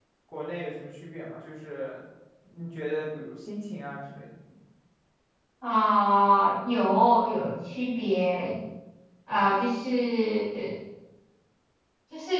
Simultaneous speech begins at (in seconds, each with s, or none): none